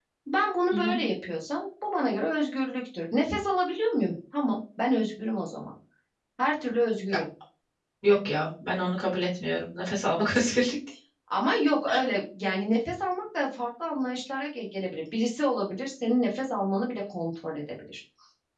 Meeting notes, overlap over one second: none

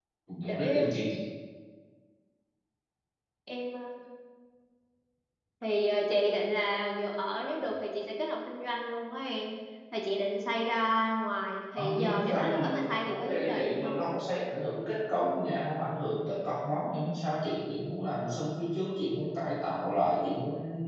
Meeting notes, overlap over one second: present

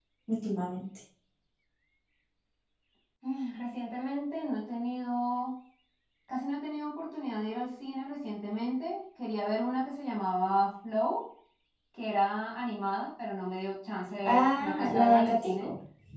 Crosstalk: present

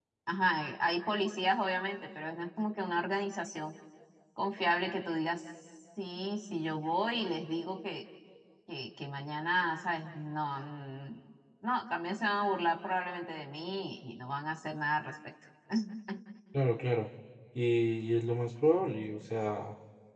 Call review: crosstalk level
none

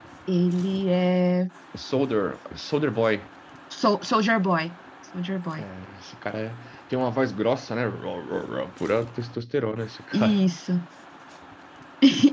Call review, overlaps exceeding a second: none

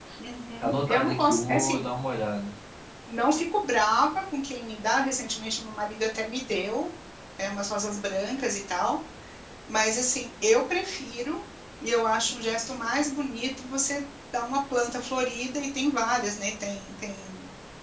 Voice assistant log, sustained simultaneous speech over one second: present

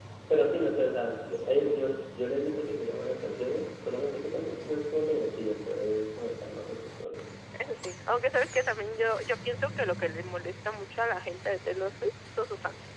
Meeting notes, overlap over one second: none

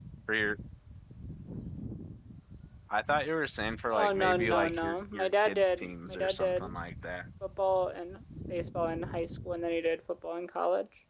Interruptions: present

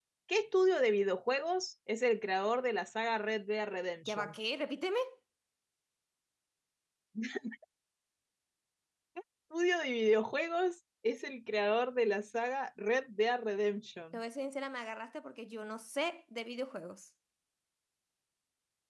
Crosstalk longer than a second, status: none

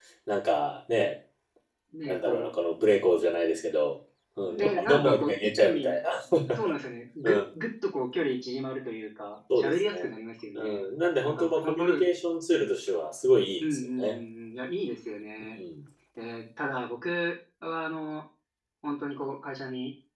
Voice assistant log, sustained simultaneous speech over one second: present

